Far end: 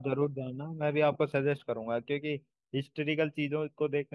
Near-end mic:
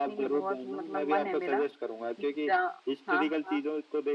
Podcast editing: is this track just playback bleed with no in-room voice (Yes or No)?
No